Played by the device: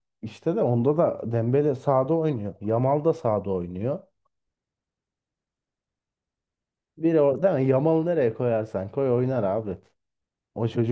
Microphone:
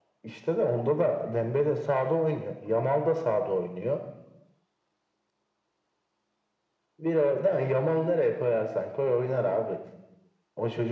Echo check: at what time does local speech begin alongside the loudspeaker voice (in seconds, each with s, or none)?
none